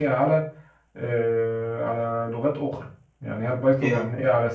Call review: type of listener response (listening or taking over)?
listening